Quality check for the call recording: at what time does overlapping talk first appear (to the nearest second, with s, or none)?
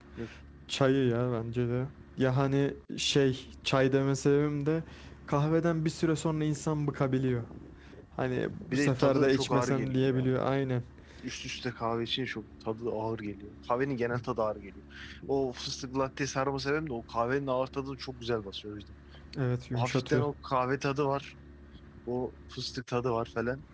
9 s